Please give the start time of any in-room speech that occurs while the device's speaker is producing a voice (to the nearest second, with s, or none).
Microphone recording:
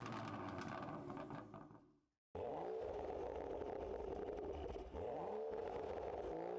none